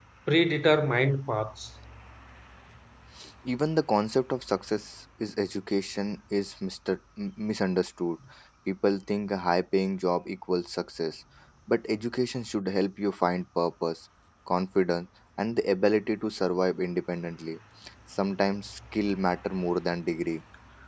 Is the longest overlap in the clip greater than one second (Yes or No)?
No